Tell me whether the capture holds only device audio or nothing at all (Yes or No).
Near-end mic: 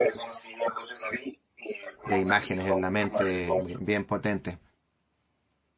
No